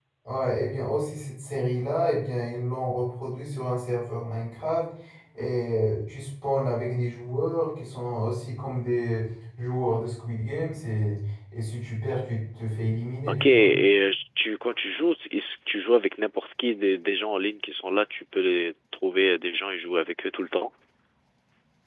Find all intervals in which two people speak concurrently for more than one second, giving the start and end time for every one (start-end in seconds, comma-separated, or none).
none